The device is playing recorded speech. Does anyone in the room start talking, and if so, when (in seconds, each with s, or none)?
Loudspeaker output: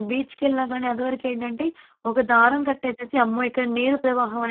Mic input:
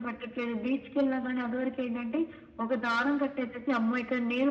none